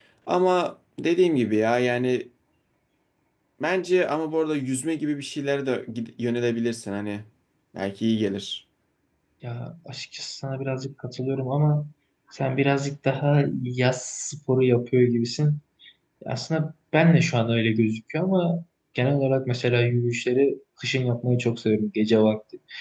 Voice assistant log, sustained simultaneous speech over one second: none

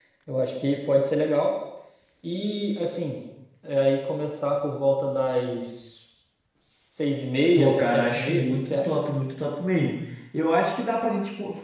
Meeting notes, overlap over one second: present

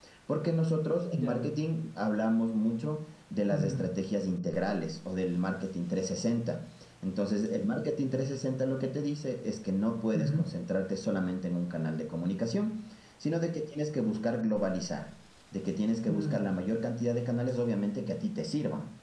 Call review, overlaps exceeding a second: none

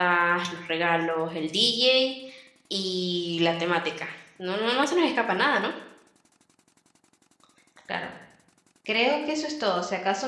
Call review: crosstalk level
none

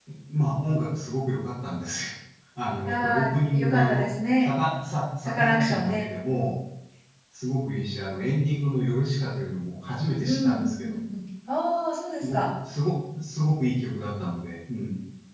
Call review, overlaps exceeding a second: present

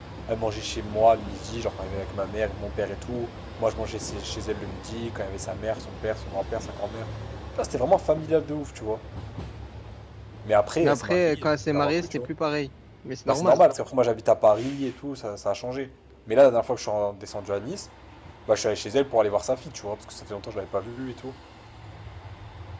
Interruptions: present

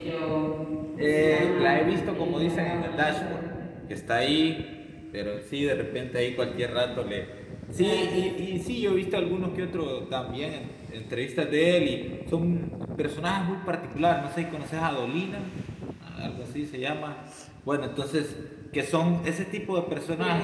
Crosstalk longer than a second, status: present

